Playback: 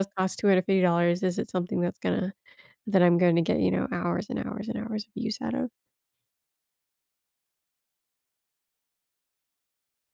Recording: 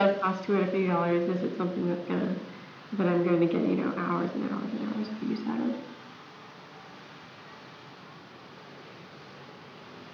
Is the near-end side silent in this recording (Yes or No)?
Yes